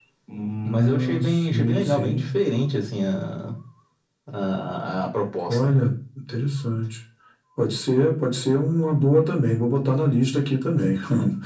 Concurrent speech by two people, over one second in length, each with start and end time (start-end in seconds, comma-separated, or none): 0.7-2.3